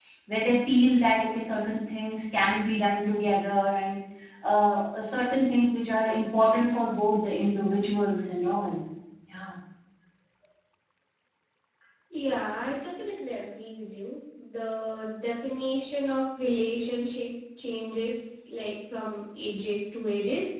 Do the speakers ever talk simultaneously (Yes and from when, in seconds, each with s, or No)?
No